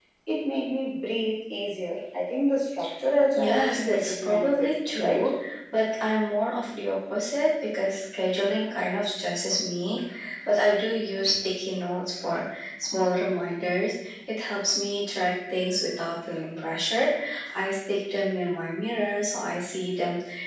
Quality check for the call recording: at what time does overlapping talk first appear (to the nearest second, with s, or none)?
3 s